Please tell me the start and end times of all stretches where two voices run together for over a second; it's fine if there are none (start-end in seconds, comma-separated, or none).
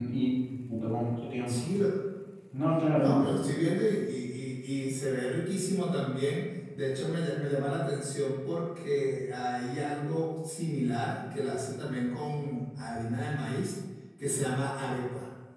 none